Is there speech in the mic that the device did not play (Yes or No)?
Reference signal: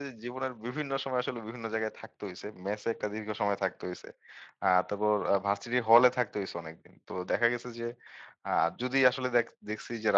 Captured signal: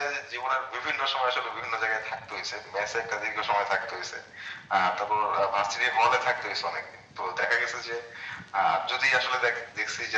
No